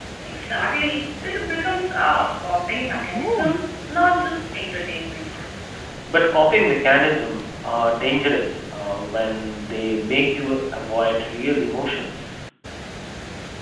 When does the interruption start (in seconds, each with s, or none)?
none